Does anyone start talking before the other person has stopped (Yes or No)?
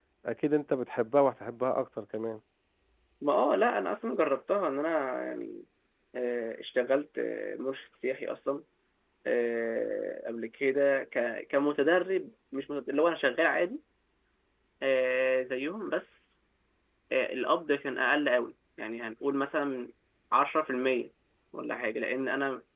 No